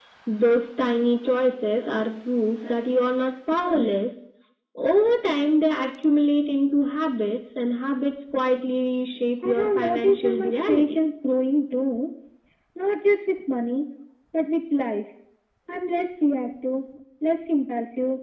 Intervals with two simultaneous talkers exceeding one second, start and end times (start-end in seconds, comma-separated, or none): 9.4-11.0